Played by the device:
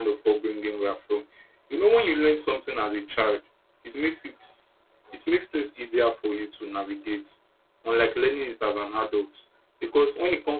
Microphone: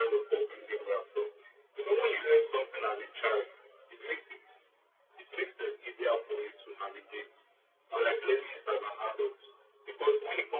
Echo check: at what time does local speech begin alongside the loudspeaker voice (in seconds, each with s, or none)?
none